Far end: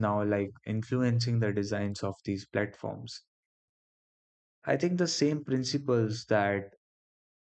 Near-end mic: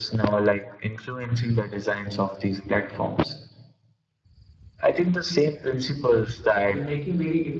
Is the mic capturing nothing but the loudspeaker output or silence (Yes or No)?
No